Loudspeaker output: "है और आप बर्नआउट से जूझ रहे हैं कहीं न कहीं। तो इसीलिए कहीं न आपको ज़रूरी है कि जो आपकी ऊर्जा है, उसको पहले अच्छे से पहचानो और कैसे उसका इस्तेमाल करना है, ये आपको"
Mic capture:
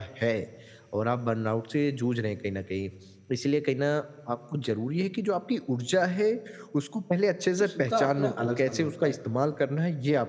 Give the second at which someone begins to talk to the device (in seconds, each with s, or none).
7.6 s